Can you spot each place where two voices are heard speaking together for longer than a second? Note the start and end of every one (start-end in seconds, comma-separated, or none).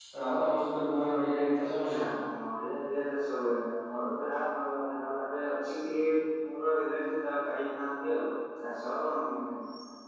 none